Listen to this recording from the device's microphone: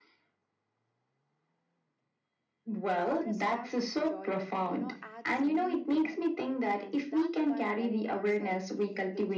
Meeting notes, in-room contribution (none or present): present